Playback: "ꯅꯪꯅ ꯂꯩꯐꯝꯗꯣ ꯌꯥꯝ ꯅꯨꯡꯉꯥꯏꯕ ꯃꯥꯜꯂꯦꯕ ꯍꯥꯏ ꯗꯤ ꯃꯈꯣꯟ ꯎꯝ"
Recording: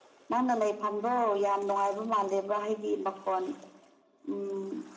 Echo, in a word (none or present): present